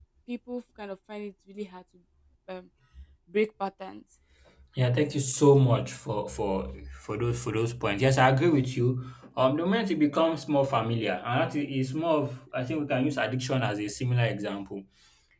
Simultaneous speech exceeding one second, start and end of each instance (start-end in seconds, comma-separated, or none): none